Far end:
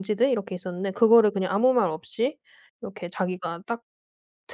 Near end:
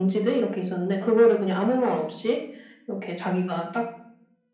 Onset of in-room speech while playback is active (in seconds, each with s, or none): none